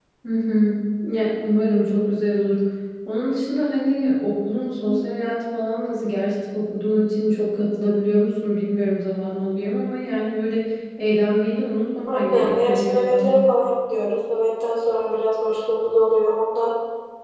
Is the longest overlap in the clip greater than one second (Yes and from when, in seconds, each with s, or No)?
Yes, from 12.1 s